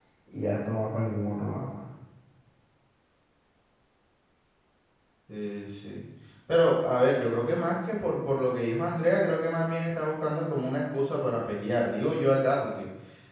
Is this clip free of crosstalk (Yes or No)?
Yes